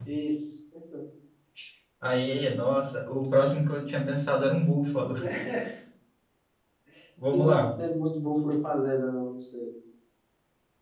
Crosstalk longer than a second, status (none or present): none